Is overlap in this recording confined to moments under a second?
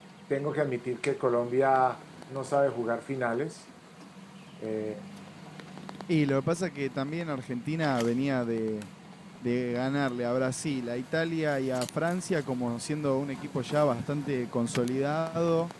Yes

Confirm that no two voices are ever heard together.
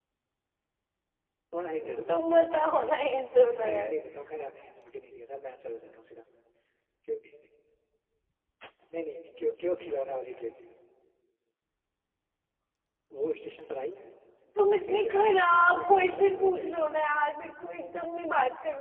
No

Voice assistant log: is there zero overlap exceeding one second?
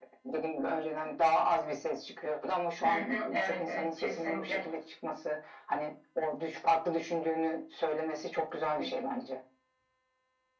No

